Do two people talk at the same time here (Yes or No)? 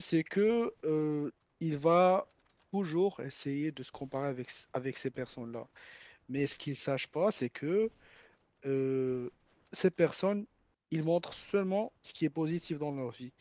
No